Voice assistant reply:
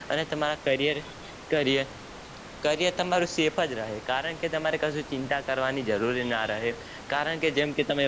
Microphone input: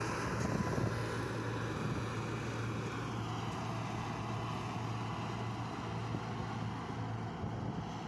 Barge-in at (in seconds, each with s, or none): none